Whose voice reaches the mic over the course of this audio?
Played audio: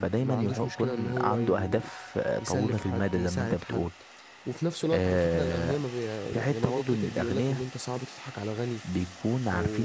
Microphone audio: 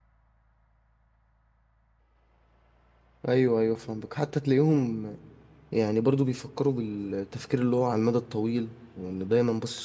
user only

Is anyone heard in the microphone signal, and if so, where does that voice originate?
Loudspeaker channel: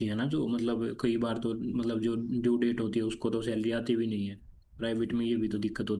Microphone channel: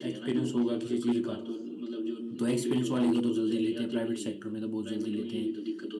both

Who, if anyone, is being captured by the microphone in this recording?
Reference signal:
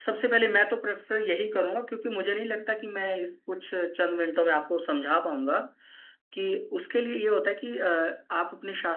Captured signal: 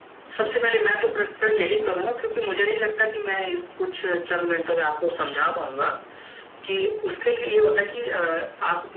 echo only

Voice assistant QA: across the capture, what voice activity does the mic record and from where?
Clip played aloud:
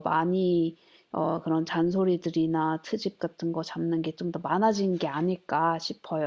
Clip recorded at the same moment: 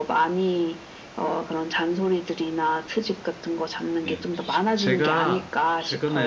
both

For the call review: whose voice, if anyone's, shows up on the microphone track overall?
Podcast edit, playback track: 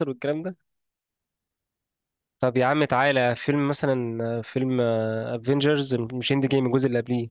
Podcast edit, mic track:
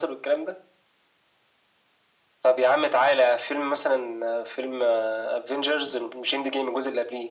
echo only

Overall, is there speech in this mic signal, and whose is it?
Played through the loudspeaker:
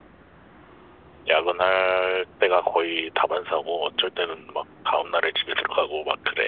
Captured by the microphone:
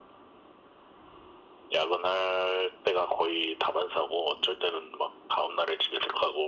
echo only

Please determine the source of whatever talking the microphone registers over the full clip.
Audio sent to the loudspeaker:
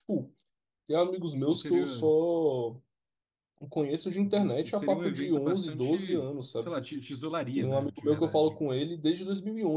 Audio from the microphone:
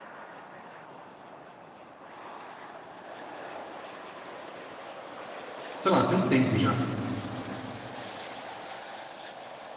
user only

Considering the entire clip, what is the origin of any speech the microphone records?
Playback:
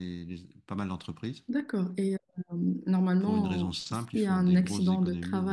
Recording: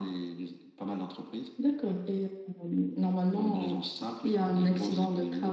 echo only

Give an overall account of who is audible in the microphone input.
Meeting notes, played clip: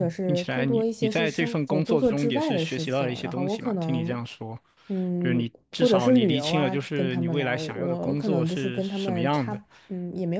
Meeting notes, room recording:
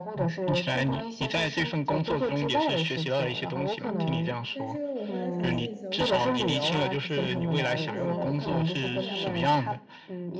both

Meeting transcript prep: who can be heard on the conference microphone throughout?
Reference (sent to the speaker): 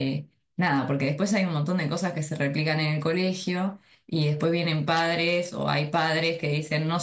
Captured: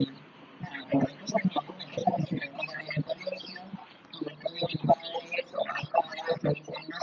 echo only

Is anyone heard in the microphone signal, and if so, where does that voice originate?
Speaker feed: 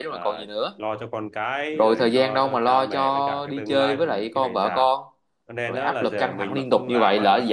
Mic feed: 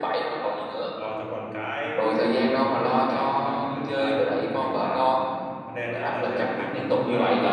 echo only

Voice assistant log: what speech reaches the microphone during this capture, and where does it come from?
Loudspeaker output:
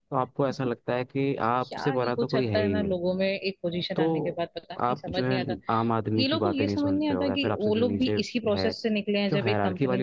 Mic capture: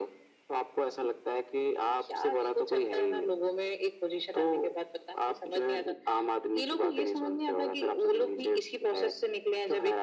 echo only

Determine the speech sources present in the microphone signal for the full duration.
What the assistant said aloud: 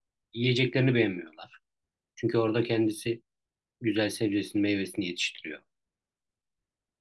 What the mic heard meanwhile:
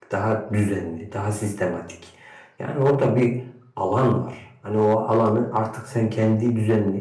user only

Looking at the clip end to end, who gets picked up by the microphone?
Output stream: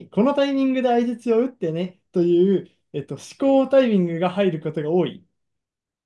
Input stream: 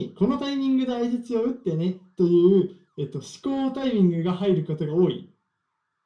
echo only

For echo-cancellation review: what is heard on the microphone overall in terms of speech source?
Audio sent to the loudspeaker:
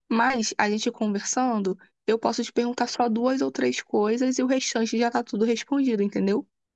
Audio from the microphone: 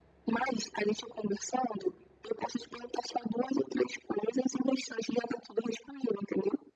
echo only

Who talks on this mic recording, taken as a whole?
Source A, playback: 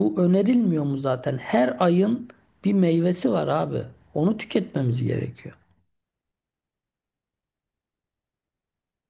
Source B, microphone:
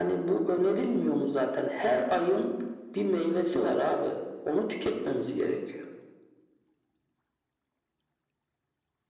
echo only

